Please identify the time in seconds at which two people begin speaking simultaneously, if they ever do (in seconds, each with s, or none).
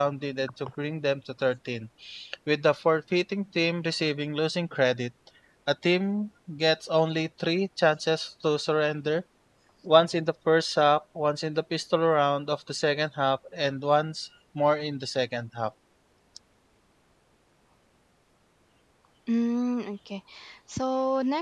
none